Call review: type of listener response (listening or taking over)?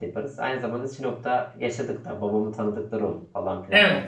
taking over